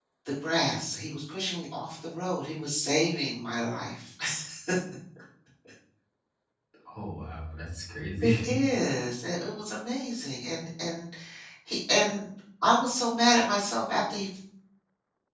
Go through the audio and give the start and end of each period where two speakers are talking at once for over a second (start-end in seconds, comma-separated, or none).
none